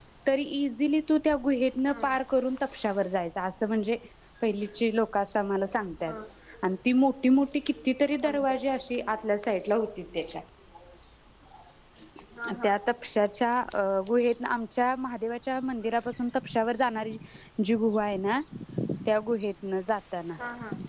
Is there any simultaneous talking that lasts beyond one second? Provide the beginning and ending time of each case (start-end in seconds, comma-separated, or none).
none